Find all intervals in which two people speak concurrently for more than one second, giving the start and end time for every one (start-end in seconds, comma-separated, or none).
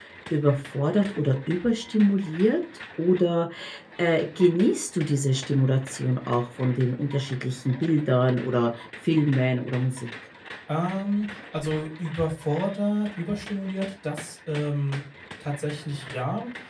none